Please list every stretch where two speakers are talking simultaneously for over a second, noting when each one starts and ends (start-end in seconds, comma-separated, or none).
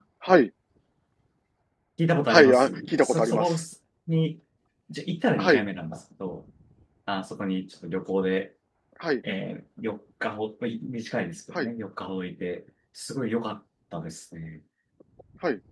2.3-3.5